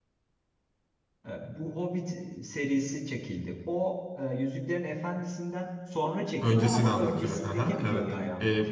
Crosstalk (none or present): present